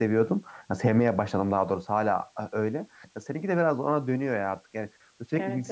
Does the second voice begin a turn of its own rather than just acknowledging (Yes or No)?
No